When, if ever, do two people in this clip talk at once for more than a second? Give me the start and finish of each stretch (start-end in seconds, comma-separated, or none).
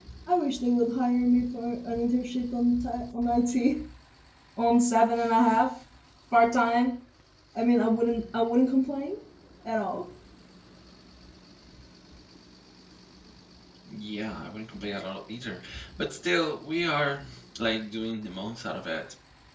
none